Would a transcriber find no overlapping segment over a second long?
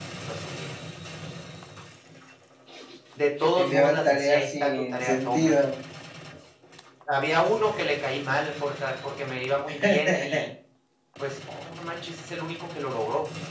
No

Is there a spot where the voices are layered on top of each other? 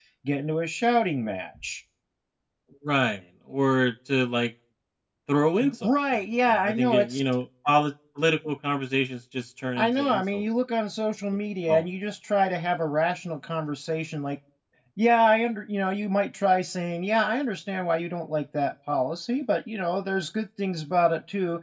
Yes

